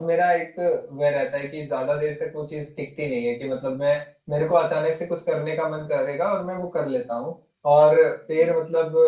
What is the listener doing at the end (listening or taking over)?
listening